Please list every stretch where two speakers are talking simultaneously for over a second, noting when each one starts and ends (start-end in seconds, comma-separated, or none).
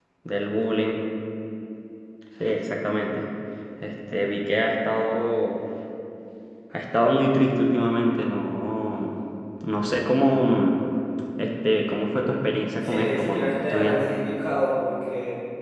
12.8-14.1